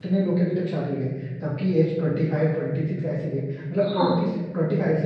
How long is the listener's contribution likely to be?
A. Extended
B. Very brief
B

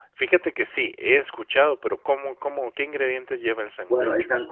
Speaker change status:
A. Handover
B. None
A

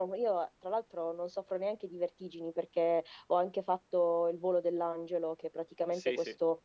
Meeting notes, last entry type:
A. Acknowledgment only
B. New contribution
A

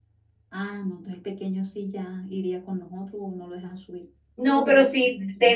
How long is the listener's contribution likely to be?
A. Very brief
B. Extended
B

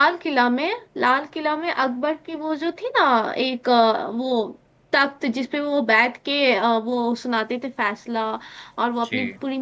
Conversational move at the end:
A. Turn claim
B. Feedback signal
B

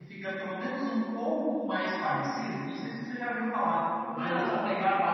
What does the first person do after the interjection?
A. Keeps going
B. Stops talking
A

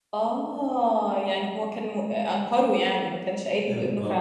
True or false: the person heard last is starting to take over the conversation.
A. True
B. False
A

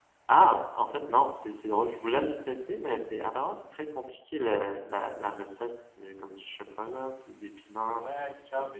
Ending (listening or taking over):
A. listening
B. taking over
B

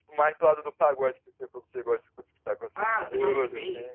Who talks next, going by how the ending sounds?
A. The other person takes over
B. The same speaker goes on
A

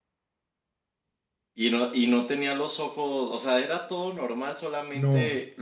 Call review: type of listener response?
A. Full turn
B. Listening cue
A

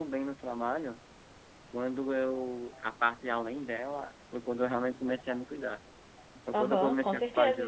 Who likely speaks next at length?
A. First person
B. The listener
B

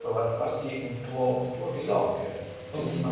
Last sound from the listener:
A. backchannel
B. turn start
A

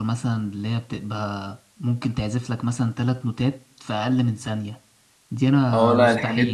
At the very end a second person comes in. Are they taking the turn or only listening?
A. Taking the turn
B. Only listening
A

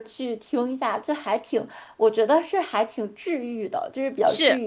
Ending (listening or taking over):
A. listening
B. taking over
B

